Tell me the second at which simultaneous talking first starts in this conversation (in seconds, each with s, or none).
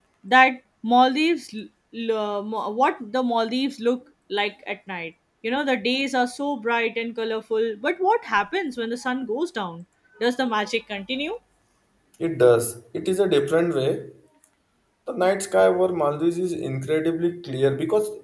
none